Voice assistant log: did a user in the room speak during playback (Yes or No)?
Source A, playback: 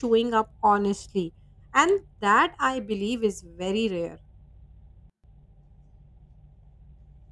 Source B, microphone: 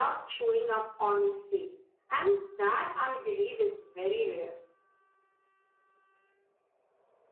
No